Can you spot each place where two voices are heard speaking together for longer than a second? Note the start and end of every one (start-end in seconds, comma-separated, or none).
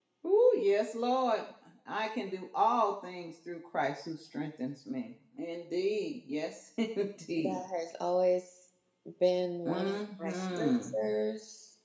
9.7-10.9